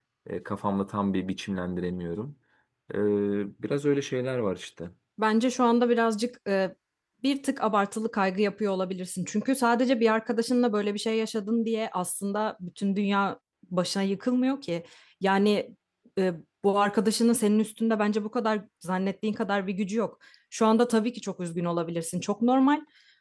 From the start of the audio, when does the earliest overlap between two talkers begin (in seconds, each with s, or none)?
none